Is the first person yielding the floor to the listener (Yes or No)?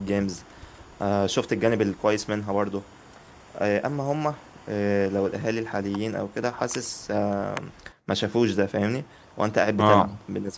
No